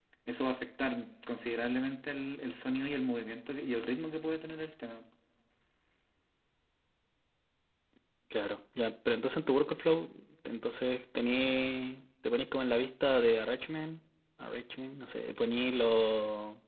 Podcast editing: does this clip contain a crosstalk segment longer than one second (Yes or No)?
No